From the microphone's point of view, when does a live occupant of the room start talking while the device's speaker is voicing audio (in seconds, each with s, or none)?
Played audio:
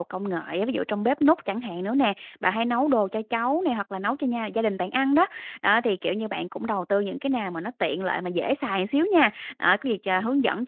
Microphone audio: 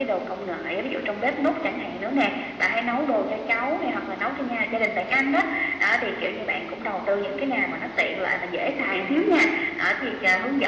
none